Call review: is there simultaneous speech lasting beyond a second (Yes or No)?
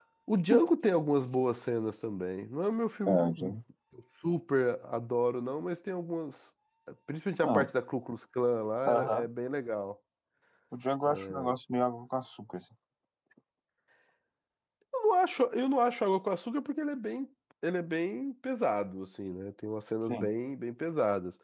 No